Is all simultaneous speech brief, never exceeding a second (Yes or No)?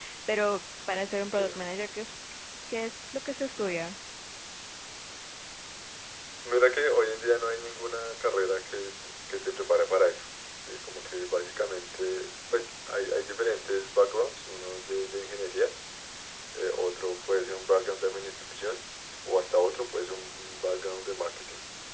Yes